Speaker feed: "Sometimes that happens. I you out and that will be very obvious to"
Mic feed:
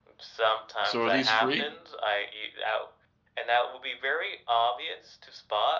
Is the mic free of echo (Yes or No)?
No